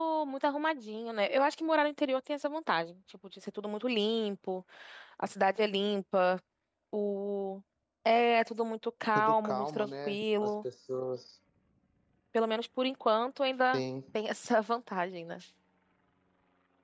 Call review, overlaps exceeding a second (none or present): present